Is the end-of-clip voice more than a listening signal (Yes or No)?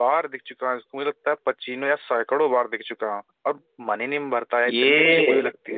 Yes